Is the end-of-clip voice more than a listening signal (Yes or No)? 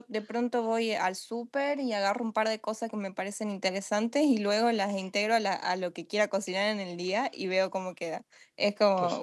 No